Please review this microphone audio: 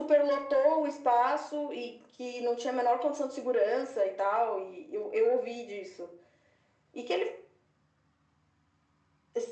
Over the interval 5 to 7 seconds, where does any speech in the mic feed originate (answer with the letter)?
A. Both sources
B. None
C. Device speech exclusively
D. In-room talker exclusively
C